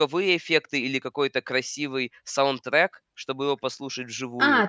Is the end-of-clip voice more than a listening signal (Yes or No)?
Yes